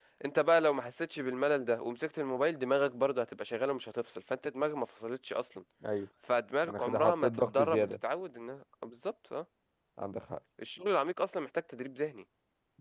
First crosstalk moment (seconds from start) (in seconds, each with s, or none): 6.7 s